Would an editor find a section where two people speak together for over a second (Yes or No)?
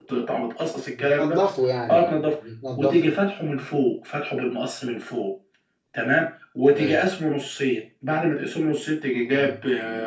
No